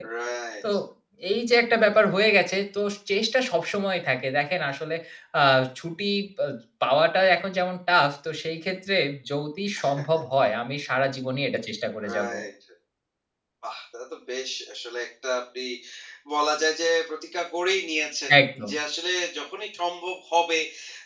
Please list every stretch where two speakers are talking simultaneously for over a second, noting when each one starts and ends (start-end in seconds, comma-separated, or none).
none